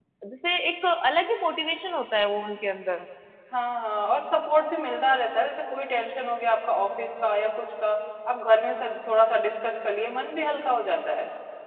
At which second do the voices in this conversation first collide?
none

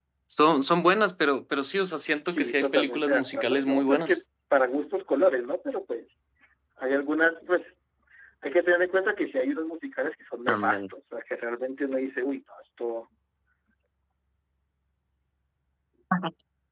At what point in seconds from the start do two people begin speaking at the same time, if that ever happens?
2 s

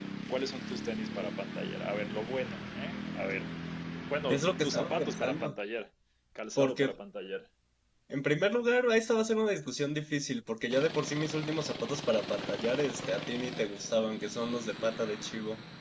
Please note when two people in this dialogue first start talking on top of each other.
4 s

